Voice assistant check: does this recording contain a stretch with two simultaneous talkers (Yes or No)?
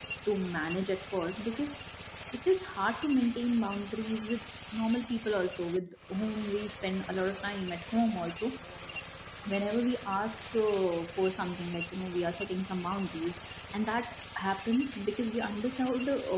No